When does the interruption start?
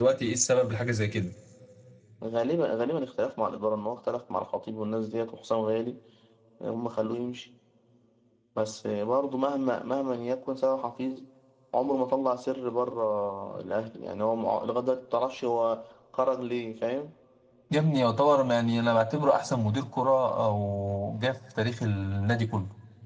none

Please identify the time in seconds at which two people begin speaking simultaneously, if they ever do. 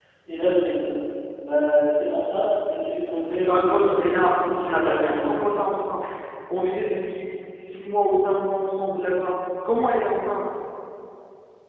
3.5 s

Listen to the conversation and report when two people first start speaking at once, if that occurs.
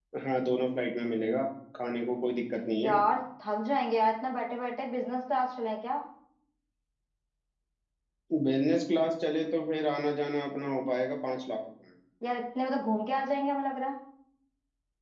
none

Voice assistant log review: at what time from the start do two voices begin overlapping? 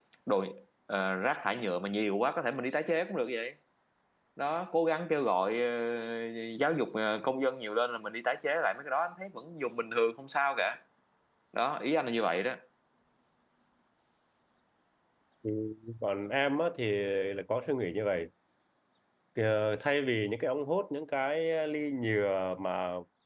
none

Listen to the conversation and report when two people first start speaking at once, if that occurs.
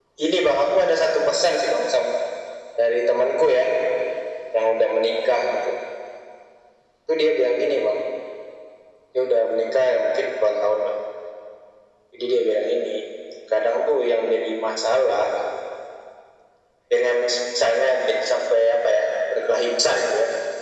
none

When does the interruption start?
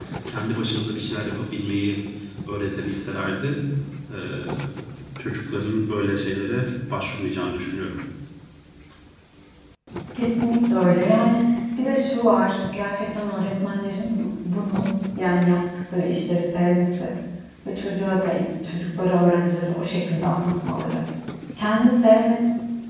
none

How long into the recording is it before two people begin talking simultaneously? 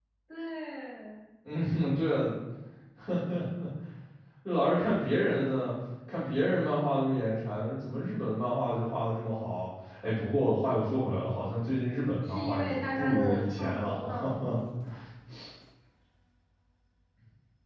12.2 s

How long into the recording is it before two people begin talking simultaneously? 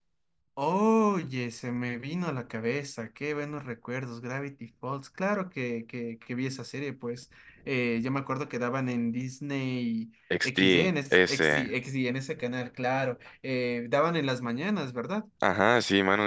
10.3 s

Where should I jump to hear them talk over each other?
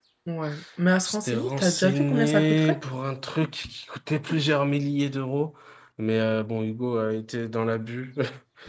1.0 s

